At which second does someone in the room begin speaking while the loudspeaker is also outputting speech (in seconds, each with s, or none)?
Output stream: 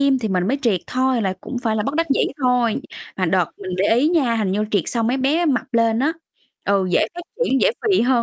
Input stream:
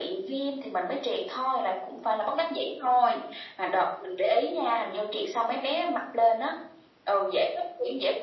none